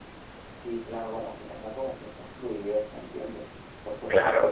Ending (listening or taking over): listening